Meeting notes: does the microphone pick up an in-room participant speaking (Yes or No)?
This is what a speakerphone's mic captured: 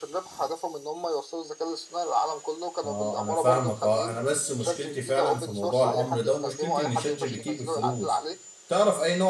Yes